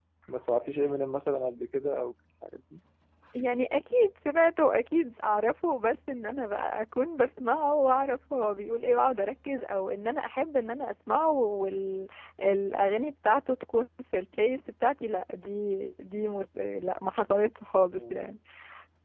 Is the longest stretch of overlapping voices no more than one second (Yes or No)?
Yes